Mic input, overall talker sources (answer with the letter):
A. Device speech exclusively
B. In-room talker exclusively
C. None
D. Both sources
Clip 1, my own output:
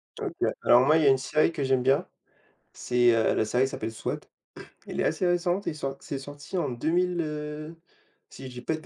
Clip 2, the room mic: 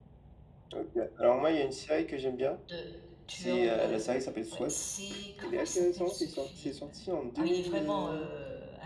D